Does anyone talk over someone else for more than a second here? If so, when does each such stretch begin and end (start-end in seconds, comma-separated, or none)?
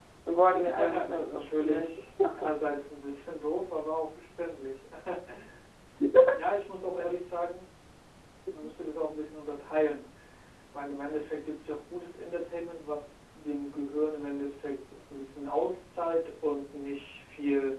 0.6-1.9